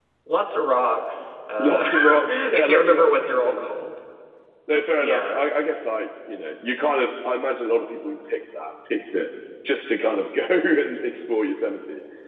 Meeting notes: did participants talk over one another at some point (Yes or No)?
Yes